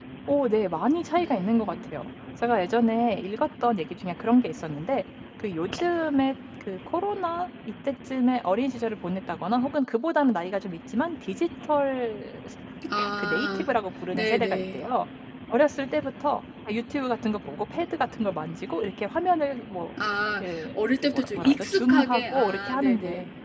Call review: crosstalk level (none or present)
present